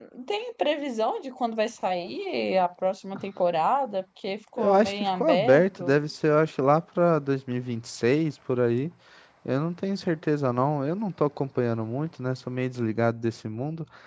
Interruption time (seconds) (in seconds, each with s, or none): 4.6 s